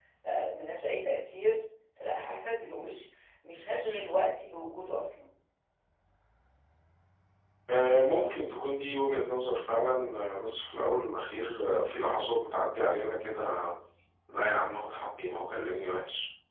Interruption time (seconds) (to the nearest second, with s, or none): none